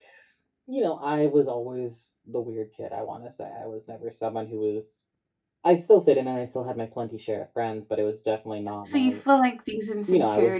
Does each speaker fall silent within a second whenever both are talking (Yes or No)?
Yes